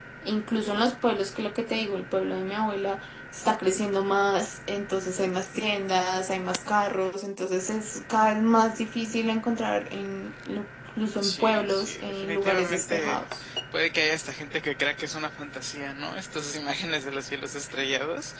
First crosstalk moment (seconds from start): 11.2 s

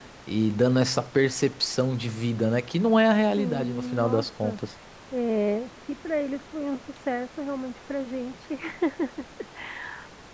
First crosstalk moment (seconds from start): 3.4 s

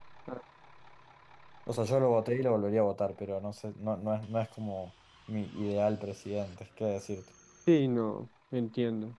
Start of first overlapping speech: none

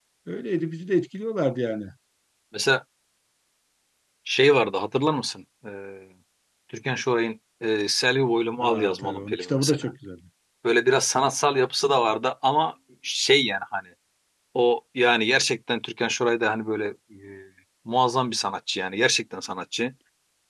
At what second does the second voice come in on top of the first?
8.6 s

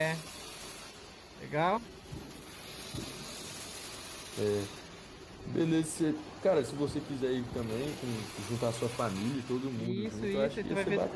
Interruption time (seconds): 9.8 s

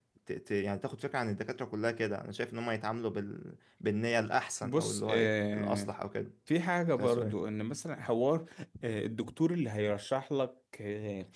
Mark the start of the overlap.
4.6 s

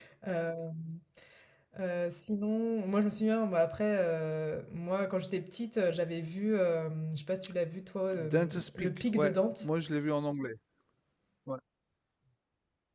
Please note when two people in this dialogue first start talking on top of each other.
8.3 s

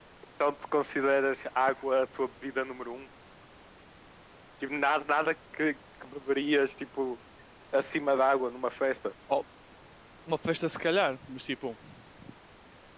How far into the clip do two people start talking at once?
none

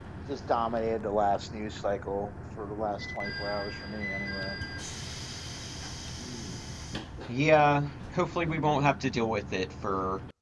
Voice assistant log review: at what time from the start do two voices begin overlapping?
none

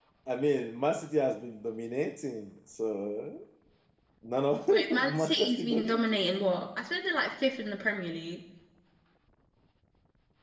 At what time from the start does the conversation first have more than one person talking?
4.7 s

